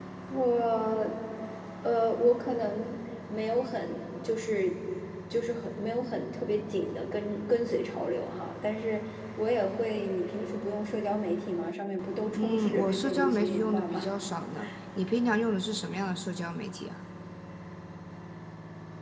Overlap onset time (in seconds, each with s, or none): 12.4 s